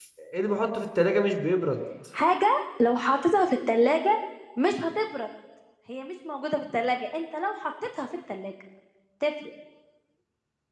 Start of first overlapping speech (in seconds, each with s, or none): none